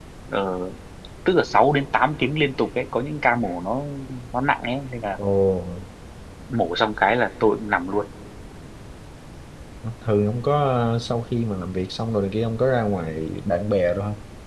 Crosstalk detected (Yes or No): No